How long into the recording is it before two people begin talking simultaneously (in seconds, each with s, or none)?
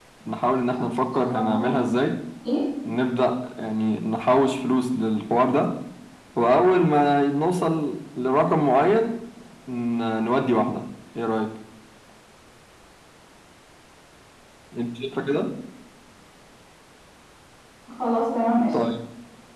0.7 s